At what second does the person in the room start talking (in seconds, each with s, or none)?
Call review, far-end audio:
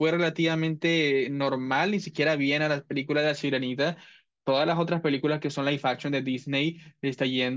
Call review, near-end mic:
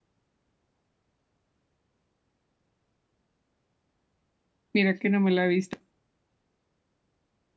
4.7 s